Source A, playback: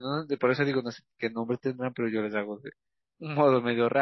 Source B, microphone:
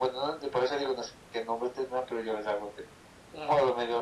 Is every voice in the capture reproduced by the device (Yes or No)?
Yes